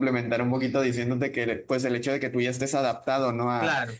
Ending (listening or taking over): listening